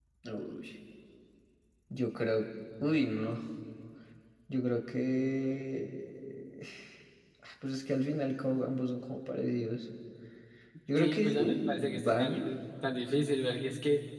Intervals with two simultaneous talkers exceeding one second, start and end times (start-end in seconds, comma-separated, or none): 10.9-12.5